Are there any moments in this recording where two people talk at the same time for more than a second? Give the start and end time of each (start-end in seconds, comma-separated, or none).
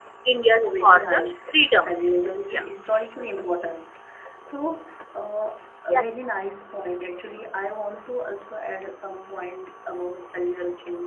0.5-2.0